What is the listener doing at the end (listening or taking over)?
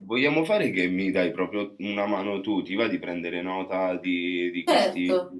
taking over